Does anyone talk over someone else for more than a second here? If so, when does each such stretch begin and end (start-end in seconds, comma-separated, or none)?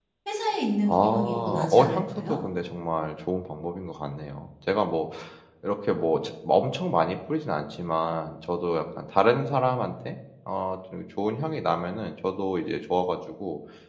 0.9-2.4